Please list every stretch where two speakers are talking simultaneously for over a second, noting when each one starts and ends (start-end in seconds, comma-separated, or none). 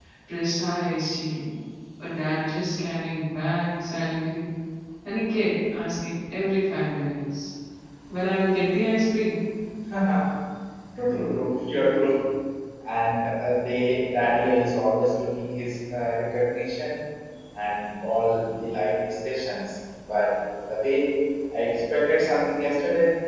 none